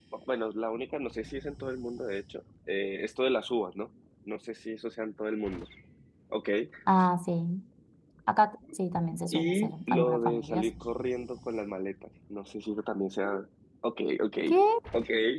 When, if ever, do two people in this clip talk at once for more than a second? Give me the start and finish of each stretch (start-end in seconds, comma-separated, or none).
9.3-10.7